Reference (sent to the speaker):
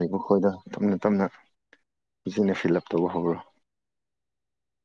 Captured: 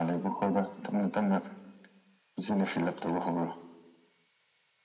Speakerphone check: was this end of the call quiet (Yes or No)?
Yes